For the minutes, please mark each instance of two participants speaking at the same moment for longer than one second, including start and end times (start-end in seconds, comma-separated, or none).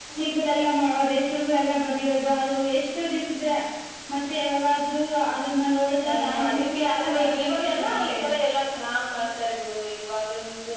6.0-8.1